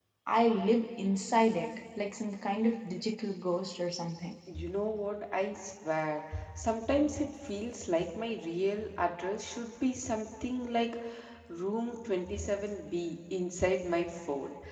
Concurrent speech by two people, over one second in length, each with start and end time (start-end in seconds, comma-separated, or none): none